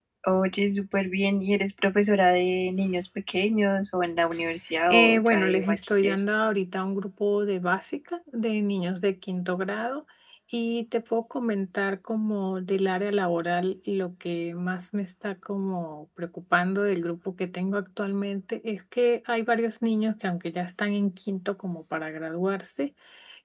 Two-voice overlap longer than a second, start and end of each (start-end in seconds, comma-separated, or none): 4.8-6.2